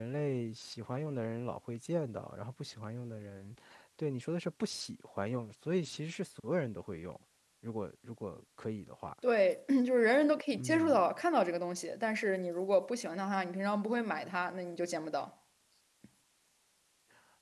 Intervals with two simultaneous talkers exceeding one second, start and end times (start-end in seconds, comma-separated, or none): none